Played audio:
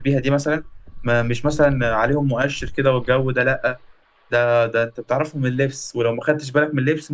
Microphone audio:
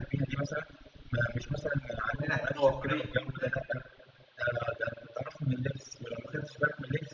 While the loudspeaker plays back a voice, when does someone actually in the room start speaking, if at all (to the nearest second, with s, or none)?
2 s